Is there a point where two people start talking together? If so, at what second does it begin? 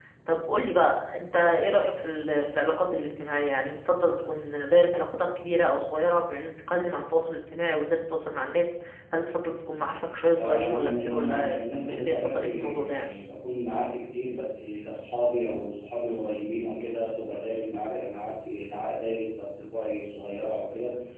10.1 s

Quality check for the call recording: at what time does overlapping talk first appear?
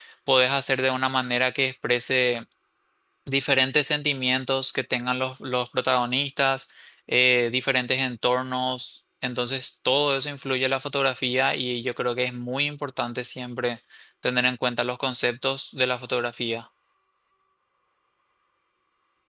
none

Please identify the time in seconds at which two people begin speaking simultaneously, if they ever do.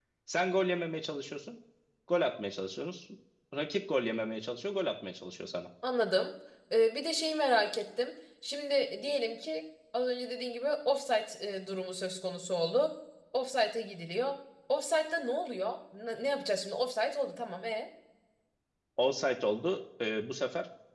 none

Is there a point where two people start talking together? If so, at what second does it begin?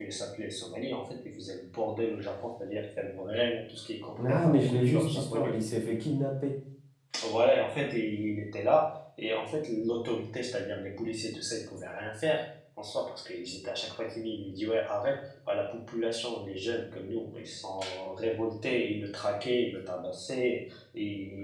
4.2 s

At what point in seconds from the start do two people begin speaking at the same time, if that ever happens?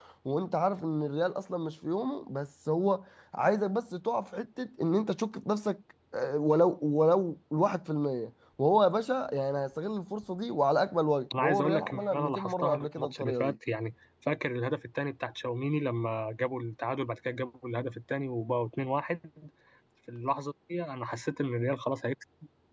11.3 s

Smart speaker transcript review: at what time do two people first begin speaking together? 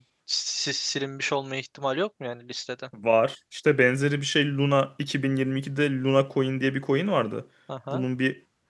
none

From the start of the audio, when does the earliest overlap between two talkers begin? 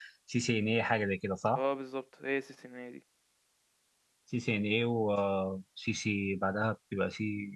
none

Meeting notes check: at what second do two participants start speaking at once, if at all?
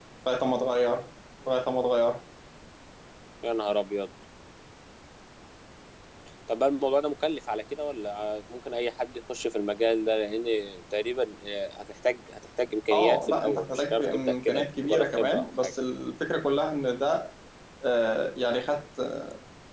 12.9 s

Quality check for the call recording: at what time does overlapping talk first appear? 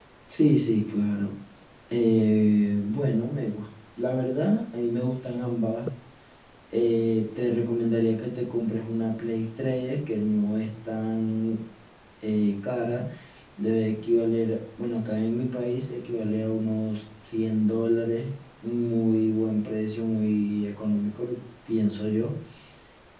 none

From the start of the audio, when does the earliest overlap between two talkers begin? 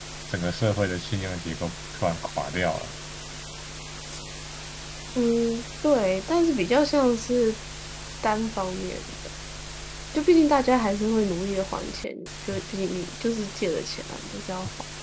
none

